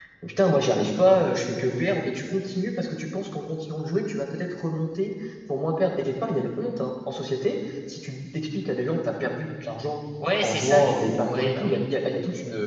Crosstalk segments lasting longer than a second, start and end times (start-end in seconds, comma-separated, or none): 10.4-11.8